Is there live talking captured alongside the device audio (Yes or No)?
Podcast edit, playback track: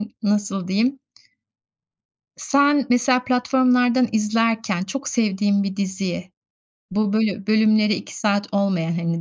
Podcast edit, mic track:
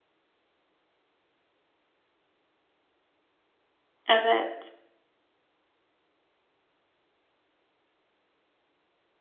Yes